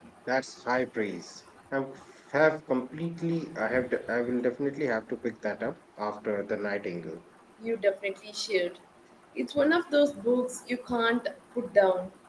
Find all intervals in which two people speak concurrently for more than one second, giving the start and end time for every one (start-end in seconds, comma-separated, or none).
none